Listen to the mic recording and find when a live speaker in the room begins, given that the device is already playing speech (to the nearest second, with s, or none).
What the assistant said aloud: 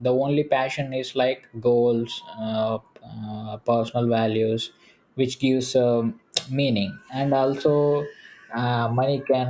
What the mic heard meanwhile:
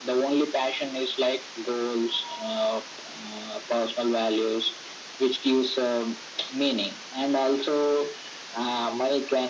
none